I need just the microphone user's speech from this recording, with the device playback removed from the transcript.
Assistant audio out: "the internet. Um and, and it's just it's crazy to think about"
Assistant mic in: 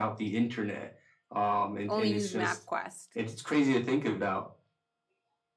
only use MapQuest."

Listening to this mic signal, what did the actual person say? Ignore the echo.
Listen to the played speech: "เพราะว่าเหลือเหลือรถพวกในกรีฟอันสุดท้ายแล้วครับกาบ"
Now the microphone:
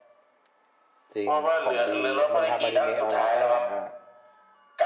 จริงของดีมันทำอนิเมะแล้วนะตอนหลังอ่ะ

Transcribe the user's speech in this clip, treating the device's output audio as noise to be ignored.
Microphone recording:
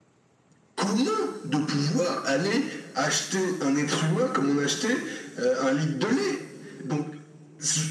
none

